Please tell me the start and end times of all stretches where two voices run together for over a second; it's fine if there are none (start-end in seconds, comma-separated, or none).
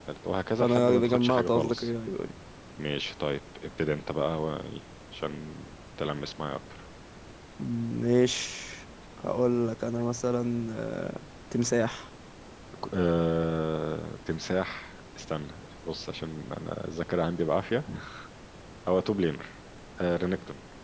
0.6-1.9